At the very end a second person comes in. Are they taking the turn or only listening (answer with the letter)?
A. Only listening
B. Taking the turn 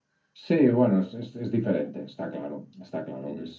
A